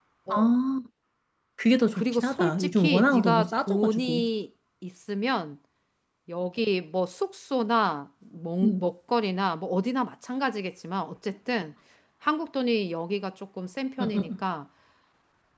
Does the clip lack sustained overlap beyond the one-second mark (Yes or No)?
No